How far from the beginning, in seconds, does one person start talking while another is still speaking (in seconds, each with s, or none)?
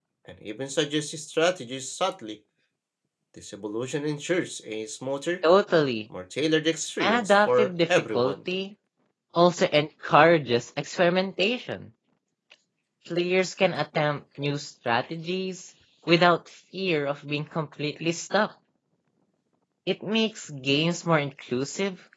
7.0 s